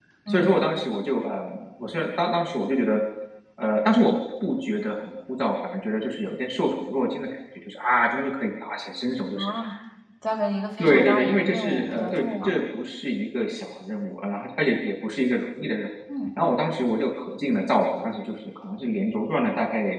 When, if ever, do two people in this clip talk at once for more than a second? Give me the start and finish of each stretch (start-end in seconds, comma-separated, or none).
10.8-12.6